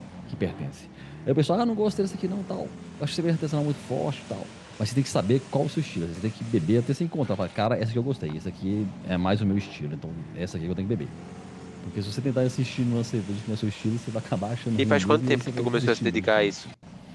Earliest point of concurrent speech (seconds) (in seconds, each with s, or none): 14.8 s